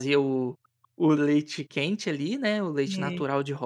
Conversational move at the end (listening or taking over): listening